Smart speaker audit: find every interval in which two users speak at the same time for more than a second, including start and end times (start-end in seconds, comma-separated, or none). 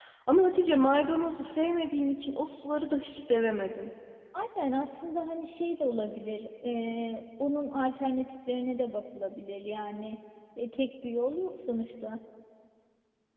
none